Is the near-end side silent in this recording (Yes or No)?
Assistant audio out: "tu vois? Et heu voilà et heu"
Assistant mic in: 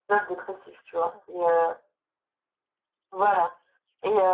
Yes